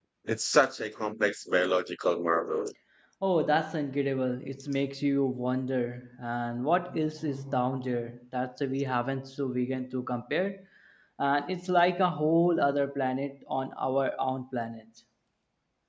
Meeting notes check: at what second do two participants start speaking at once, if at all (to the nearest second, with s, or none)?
none